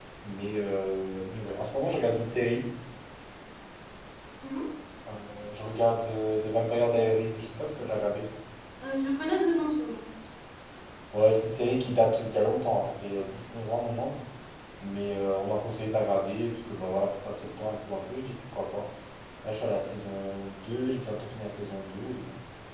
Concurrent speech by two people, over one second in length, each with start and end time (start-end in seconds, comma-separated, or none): none